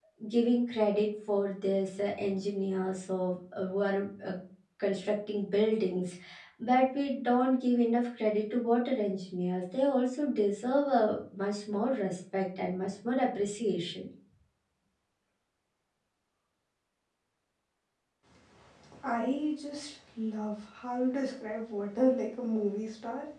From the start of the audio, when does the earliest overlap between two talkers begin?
none

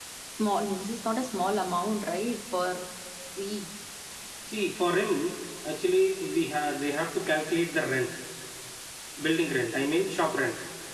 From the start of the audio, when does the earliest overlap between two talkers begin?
none

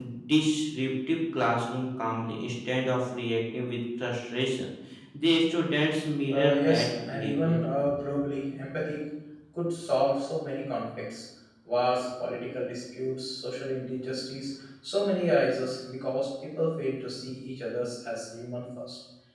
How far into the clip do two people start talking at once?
6.3 s

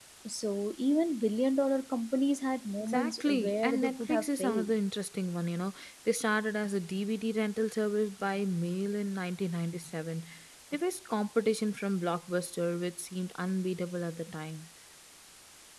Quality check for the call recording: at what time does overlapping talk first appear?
2.8 s

